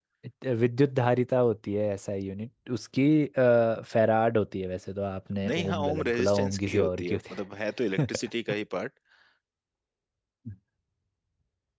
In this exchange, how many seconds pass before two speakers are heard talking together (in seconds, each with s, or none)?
5.5 s